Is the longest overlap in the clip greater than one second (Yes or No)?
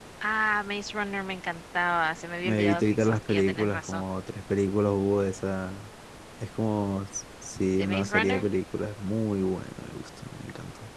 Yes